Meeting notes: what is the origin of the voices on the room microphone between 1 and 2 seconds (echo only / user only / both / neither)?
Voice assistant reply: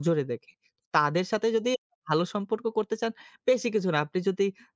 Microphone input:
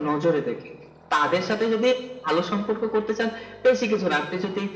both